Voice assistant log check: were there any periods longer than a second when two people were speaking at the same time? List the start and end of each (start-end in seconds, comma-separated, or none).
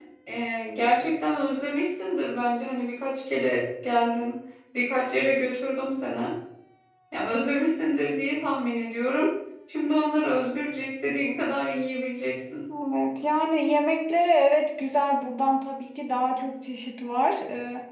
none